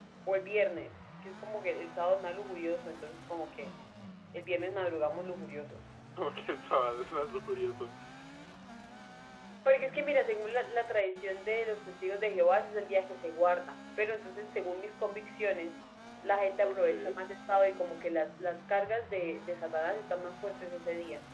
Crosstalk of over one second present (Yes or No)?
No